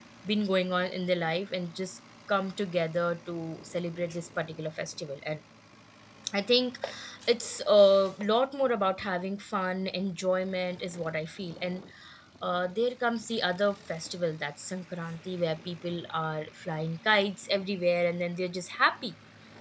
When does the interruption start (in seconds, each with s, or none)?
none